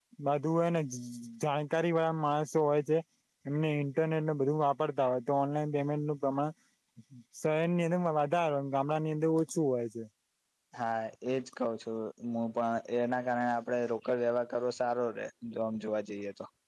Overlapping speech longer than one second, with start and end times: none

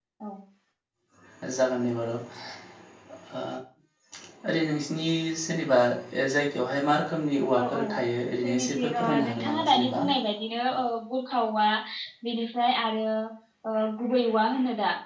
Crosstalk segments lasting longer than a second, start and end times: 8.4-10.0

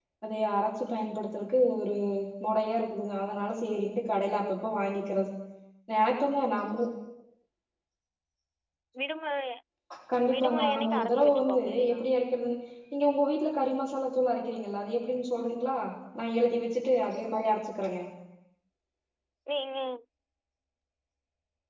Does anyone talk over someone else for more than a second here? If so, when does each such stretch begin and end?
10.3-12.0

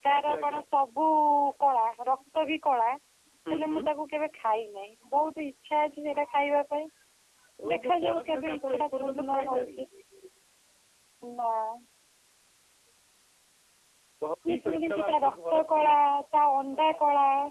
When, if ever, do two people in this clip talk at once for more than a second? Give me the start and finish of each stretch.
7.7-9.8, 14.5-15.9

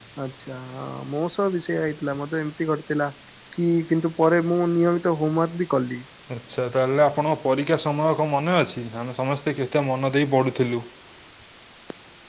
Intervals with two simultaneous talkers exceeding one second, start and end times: none

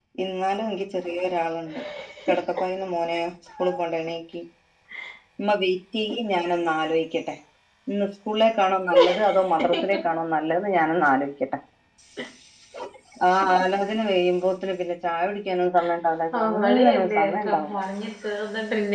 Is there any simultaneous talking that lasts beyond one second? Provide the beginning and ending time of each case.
16.4-17.8

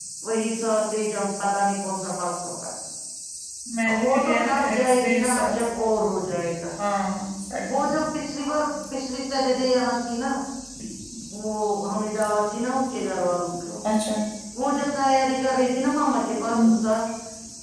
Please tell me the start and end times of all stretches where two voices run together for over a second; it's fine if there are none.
4.0-5.6

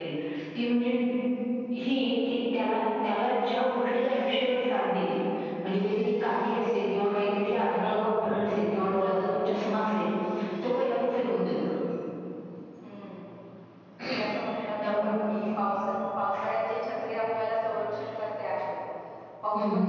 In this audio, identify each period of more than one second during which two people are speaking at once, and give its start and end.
none

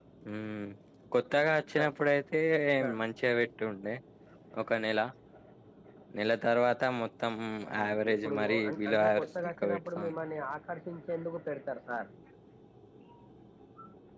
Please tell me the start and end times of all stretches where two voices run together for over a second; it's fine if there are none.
7.7-10.2

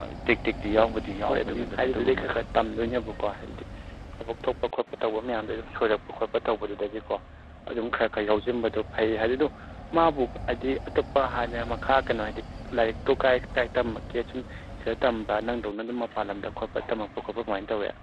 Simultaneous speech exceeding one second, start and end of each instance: 0.7-2.4

